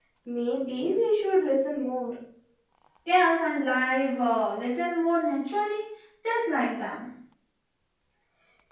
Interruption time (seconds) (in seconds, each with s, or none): none